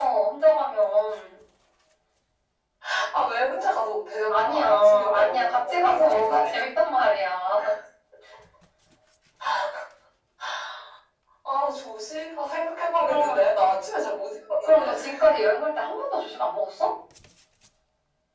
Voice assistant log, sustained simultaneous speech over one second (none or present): present